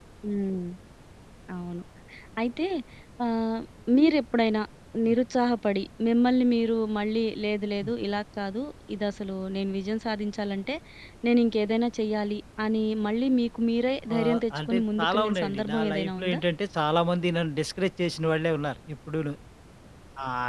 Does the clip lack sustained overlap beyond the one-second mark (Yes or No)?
No